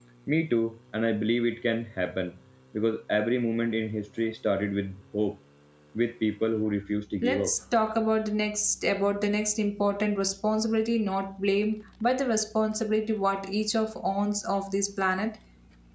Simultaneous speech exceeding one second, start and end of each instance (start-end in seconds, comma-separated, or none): none